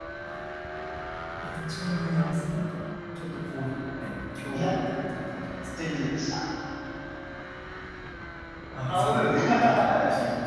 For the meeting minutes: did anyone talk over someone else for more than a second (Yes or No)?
Yes